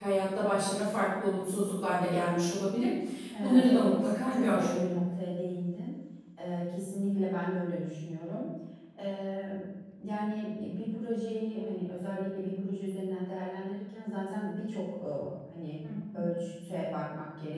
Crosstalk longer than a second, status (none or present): present